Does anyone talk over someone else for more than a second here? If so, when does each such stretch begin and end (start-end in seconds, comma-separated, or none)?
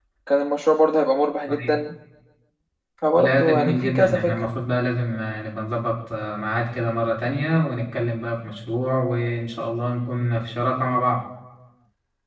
3.1-4.4